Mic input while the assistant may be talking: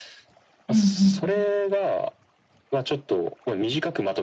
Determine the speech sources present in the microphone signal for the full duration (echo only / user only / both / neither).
both